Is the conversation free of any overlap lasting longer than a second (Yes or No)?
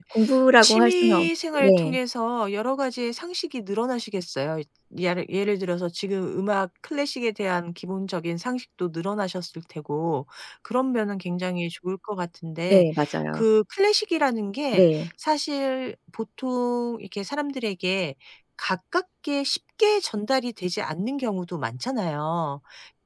No